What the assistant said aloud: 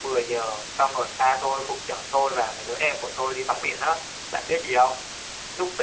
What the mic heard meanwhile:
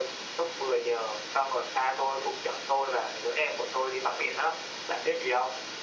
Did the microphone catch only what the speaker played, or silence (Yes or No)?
Yes